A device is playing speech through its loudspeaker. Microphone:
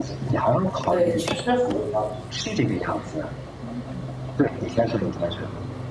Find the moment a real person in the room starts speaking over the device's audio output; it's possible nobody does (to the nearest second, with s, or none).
1 s